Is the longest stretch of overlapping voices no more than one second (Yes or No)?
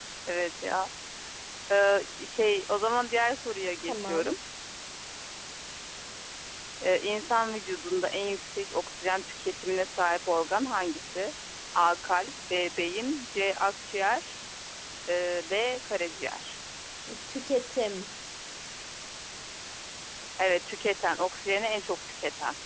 Yes